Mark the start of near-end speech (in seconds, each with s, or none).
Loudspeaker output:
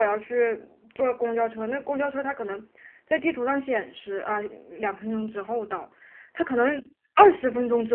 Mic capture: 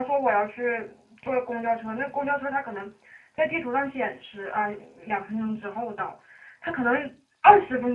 none